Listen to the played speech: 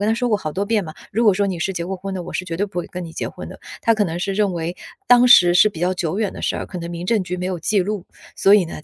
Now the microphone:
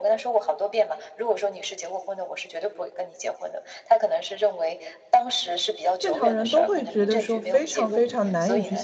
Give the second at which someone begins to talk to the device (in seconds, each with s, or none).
6.0 s